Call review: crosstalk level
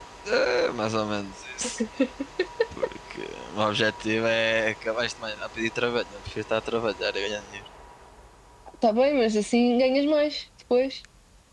none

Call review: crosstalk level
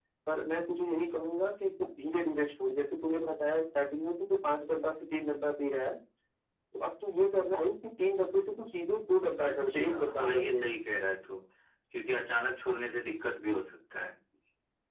present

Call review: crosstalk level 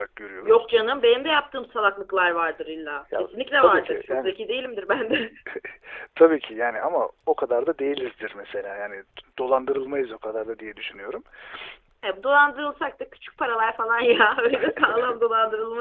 present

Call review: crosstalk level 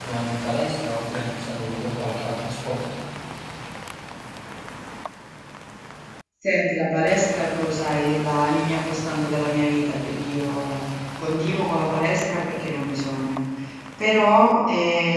none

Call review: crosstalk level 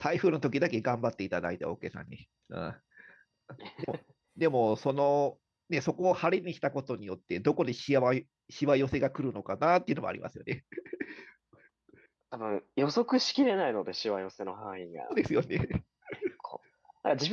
none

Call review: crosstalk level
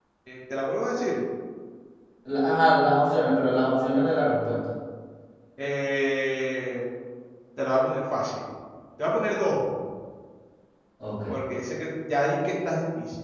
none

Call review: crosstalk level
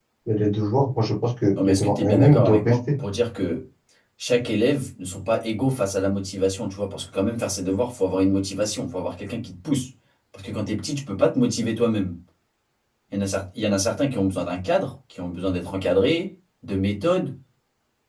present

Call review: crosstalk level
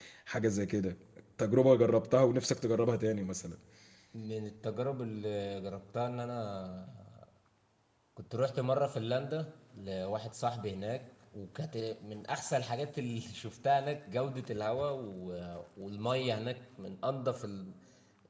none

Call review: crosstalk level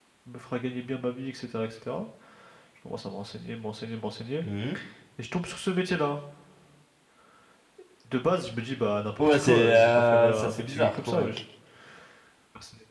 present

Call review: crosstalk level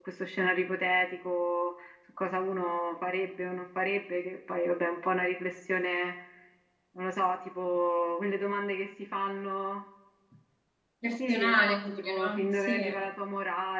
present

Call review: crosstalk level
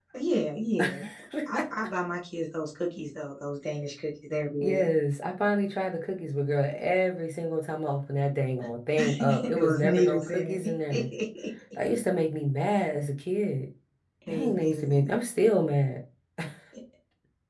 present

